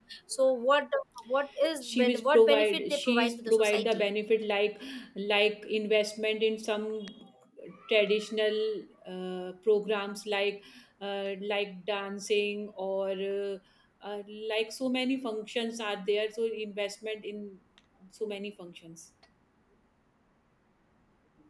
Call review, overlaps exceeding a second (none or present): present